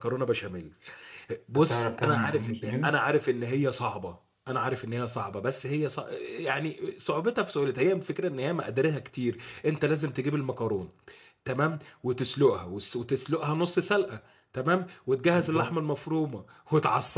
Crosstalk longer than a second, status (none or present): present